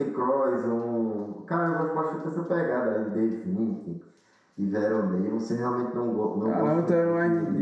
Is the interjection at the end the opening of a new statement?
Yes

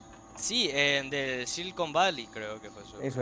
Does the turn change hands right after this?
Yes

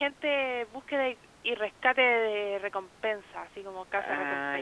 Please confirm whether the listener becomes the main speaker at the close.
Yes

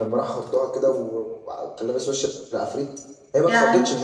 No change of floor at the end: Yes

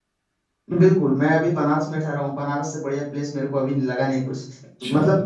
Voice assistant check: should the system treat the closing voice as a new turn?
No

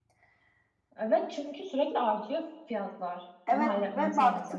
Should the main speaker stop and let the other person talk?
Yes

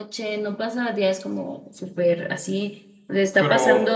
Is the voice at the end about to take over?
No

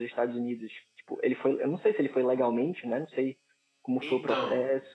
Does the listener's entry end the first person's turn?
Yes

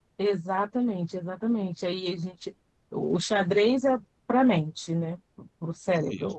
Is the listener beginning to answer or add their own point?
No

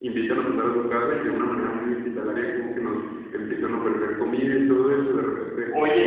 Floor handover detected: Yes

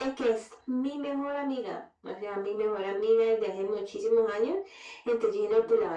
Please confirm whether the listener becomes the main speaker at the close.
No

